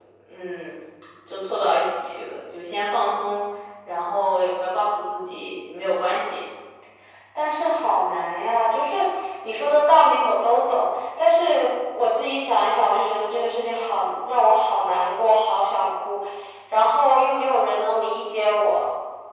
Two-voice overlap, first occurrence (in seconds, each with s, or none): none